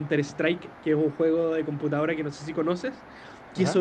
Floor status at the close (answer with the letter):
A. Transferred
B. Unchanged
B